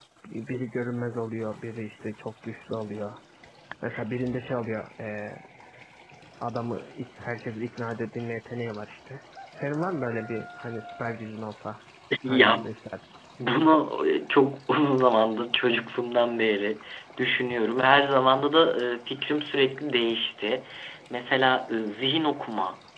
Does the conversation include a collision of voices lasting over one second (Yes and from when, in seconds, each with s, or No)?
No